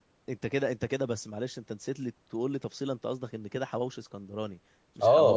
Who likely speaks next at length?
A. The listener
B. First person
A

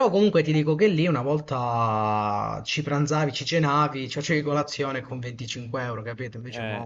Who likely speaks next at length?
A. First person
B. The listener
B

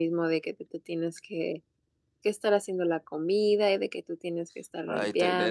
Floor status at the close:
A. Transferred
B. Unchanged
A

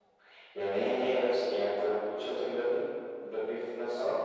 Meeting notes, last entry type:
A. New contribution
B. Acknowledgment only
A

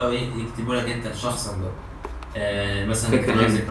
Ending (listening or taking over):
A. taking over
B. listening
B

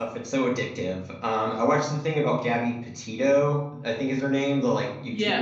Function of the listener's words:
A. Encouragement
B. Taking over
A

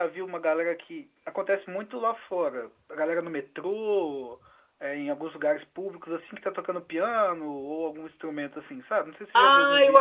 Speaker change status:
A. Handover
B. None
A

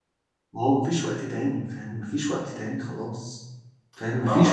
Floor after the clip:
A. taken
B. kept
A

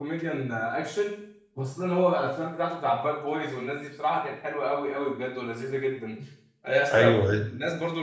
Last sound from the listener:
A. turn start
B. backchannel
B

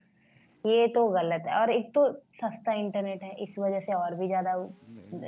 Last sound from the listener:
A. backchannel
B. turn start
B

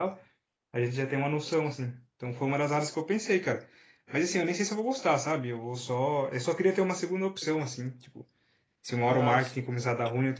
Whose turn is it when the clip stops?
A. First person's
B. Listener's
A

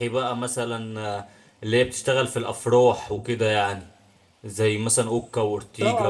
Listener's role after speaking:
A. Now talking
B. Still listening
A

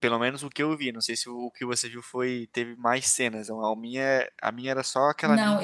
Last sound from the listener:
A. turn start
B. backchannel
A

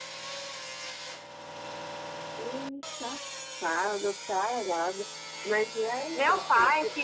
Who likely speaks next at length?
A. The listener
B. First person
A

